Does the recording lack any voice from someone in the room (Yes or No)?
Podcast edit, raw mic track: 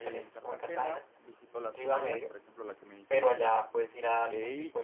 No